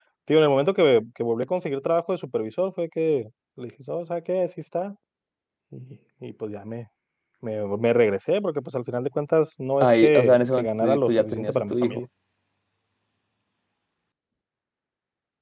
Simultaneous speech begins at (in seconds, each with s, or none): 9.8 s